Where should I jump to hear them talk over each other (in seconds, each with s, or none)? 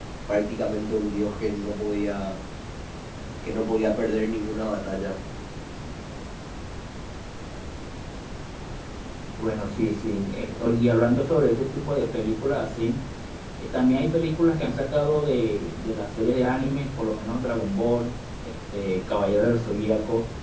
none